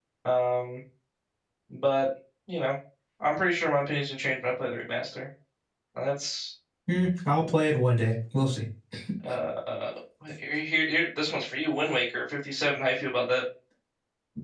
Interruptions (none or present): none